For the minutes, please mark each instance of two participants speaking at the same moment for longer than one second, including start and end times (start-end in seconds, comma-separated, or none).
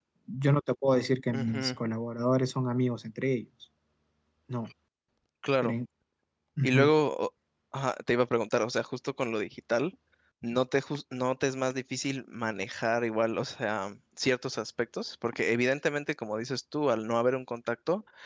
none